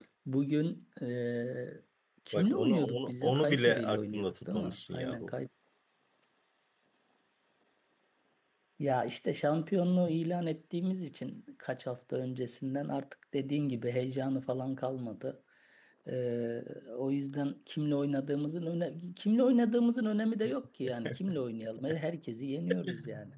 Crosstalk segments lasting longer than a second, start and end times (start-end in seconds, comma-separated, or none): 2.3-5.3